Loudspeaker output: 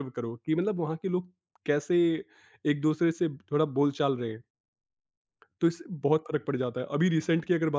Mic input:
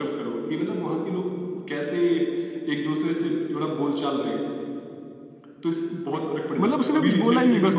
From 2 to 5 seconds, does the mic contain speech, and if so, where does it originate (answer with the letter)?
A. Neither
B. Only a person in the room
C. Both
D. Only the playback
D